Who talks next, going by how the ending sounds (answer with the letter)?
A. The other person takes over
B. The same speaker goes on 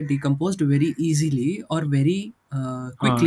A